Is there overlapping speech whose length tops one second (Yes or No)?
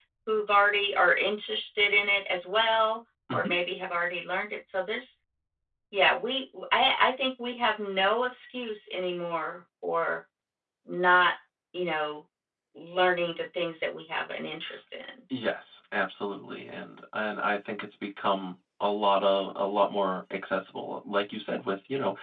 No